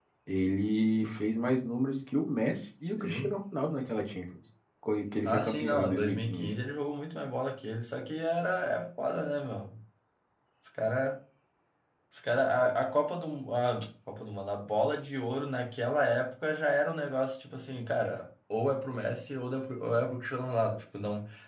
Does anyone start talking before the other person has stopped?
Yes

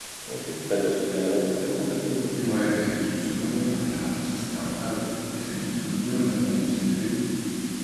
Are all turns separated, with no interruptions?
Yes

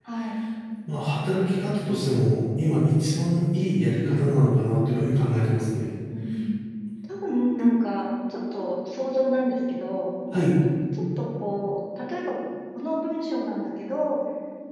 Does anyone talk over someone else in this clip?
No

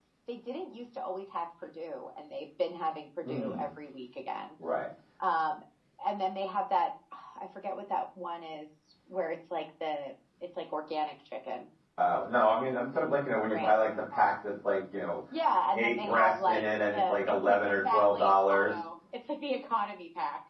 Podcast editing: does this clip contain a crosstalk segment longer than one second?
Yes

